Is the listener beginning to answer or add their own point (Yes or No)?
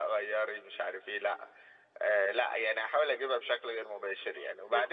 No